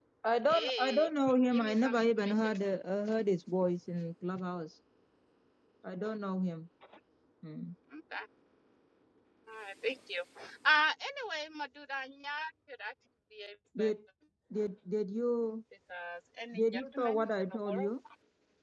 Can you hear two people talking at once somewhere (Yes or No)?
Yes